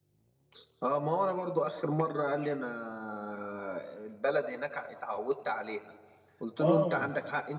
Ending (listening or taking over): listening